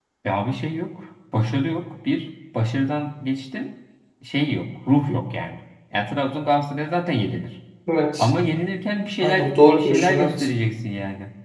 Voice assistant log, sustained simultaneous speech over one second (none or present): present